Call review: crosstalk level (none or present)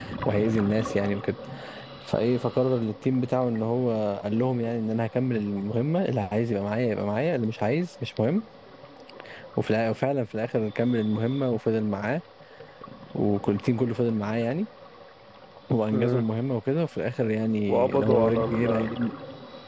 present